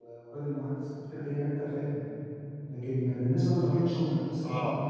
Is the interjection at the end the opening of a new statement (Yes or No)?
No